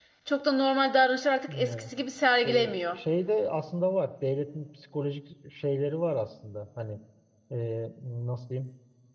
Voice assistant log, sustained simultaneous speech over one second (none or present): none